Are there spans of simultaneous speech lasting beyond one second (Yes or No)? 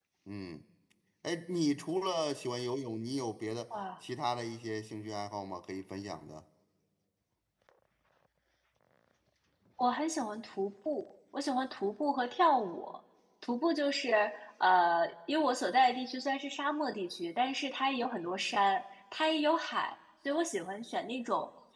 No